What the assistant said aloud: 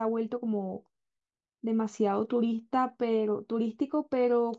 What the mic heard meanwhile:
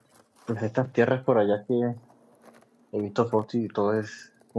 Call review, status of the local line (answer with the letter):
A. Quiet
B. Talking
B